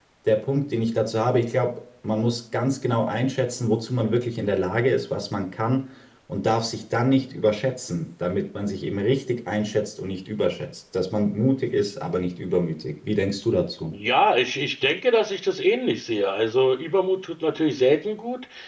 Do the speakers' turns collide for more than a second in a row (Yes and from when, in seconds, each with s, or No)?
No